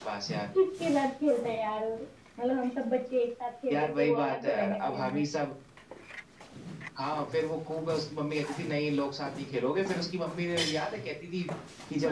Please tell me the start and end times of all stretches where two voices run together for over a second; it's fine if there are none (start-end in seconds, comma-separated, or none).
3.7-5.2